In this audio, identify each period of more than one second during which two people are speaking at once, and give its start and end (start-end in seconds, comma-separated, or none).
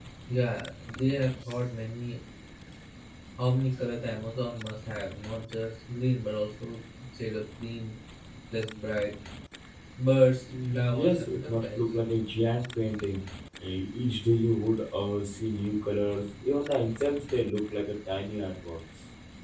10.5-11.8